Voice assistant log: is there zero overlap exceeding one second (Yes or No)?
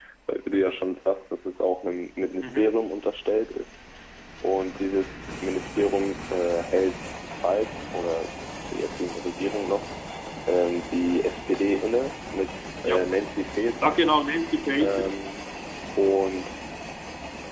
Yes